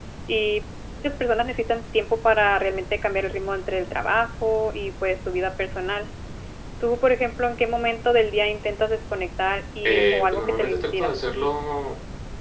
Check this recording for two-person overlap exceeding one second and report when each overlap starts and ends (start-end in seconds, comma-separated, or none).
9.8-11.1